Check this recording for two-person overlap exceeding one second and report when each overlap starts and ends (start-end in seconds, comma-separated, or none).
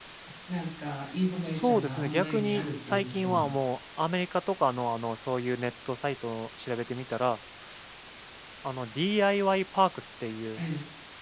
1.4-3.5